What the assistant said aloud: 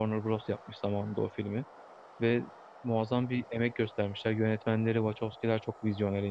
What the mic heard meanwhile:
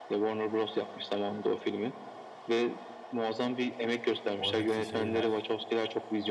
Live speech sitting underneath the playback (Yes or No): Yes